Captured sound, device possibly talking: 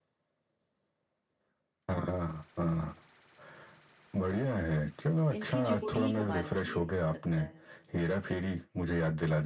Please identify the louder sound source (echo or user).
echo